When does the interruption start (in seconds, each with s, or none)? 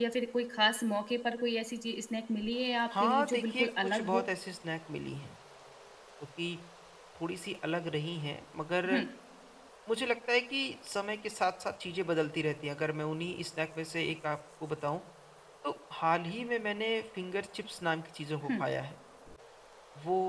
2.9 s